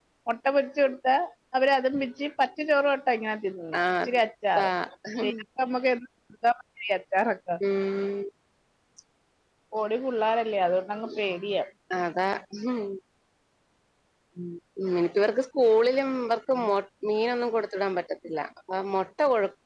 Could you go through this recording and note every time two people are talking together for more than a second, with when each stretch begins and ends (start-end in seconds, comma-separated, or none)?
none